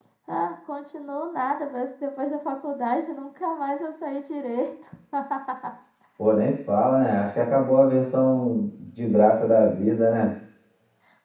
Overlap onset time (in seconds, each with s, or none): none